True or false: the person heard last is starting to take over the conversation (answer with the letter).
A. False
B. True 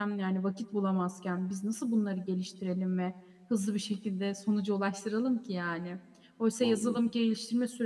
A